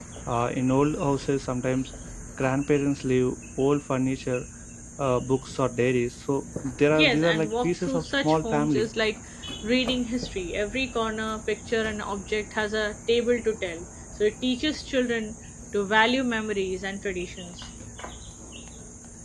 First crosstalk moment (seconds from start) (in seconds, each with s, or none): 6.9 s